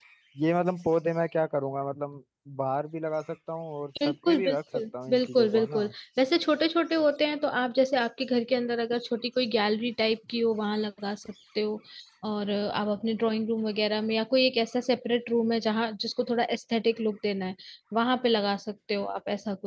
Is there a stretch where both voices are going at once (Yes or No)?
Yes